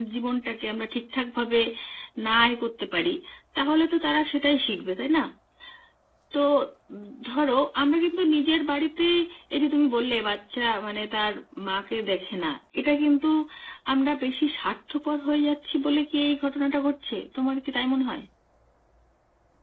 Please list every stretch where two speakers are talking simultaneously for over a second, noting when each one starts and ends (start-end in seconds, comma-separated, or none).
none